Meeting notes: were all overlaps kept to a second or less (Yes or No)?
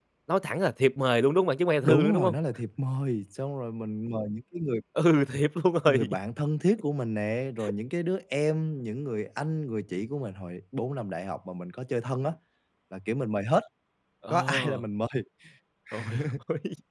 Yes